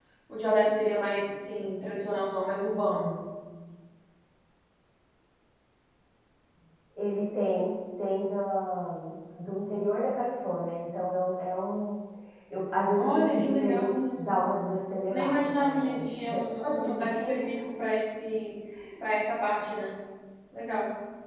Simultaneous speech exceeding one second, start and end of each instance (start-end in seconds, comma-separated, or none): 13.0-14.4, 15.1-17.3